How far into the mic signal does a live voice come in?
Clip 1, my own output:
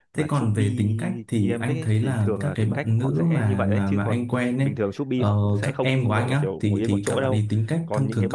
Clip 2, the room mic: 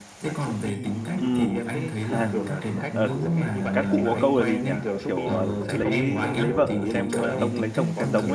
1 s

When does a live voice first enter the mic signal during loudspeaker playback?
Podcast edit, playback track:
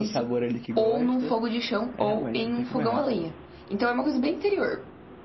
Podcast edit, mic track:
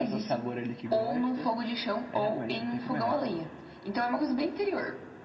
none

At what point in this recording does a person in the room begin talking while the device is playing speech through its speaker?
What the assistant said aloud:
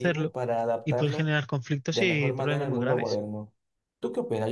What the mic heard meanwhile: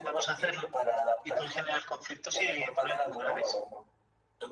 none

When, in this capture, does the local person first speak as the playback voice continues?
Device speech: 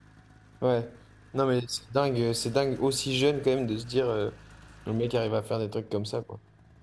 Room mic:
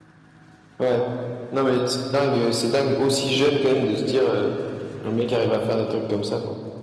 none

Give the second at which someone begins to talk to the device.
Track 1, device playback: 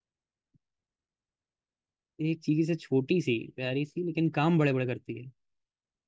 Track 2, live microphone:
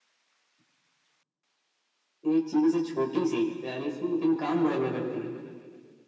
none

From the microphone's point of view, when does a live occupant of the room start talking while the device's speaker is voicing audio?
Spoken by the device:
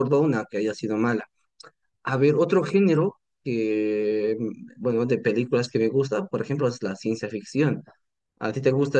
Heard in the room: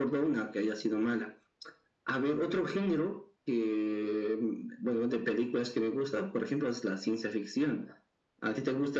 none

